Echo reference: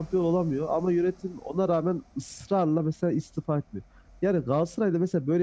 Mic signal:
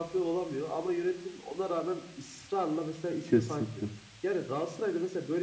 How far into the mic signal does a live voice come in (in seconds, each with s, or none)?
3.2 s